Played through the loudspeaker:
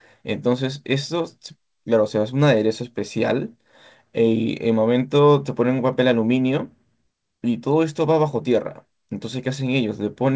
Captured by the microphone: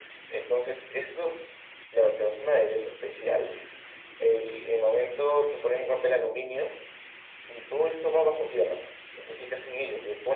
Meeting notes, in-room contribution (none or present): none